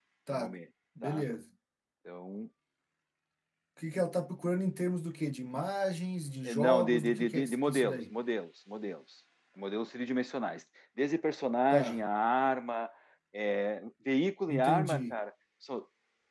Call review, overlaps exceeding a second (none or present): present